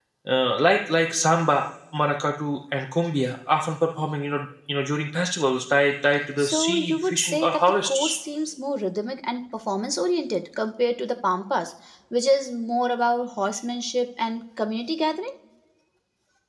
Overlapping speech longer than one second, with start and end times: 6.4-8.1

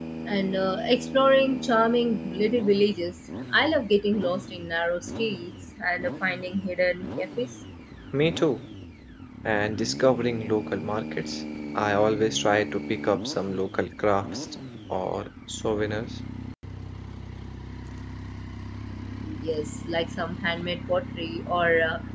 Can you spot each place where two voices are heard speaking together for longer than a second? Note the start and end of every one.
none

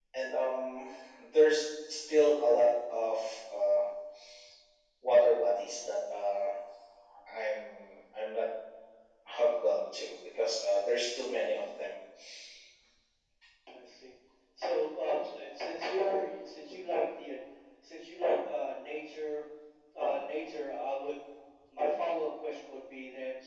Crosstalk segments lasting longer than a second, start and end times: none

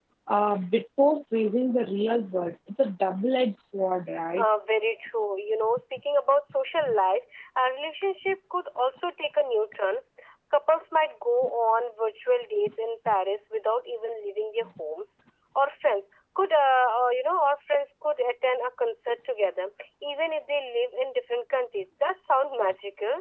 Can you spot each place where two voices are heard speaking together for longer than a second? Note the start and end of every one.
none

